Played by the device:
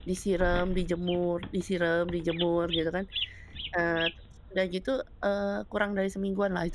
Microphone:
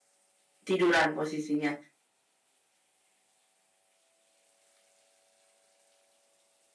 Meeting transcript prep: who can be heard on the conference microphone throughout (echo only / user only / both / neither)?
user only